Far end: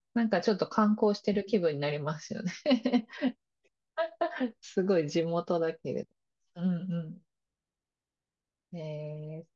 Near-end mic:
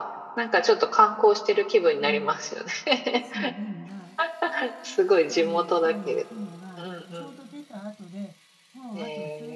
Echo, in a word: present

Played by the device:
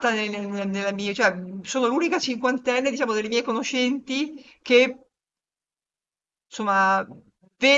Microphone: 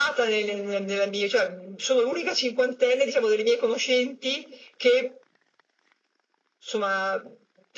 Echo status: present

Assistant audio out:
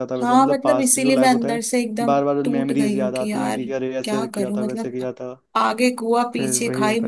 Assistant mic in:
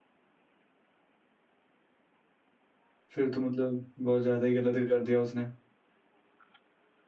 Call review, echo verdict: none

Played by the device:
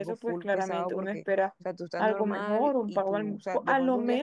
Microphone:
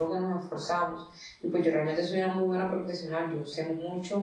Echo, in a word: none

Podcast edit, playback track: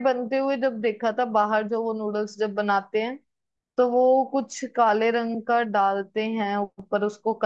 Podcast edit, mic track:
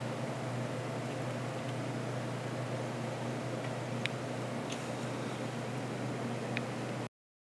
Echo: none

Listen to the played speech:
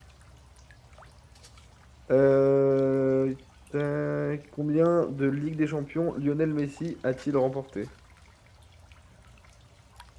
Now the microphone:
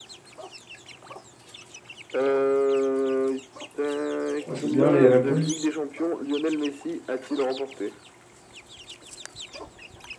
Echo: present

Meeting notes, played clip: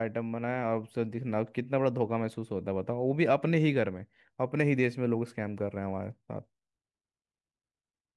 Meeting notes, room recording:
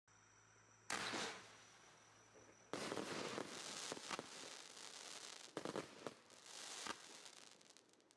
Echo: none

